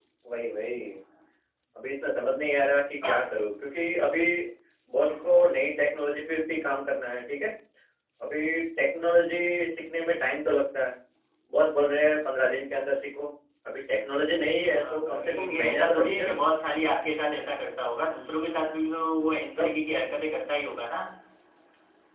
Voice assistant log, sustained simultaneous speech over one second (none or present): present